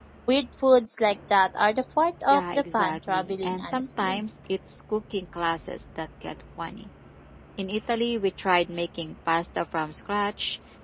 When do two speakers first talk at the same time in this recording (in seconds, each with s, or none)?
2.3 s